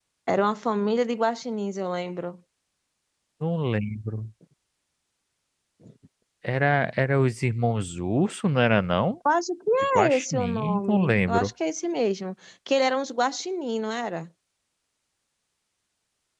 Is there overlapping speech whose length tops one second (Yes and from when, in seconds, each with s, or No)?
Yes, from 9.8 s